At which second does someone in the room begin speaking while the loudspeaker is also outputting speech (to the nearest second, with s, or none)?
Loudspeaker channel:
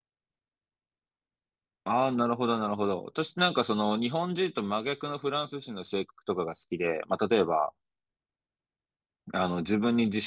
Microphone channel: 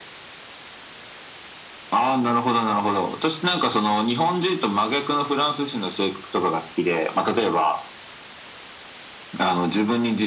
none